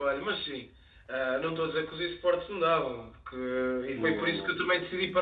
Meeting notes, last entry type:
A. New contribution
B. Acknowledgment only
B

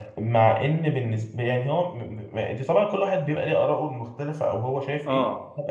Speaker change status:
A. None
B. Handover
B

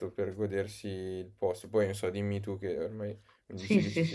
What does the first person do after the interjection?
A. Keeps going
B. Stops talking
B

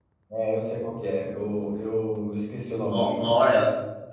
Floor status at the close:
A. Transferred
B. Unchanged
A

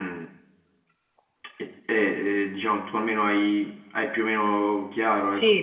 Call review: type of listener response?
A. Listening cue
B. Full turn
B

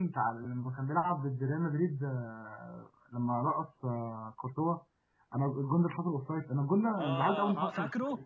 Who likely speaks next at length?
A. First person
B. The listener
B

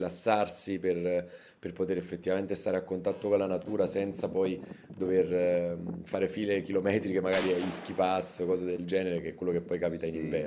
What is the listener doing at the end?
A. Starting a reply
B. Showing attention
A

